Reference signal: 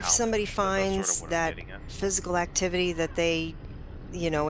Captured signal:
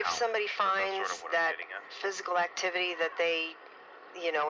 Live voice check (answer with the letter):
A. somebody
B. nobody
B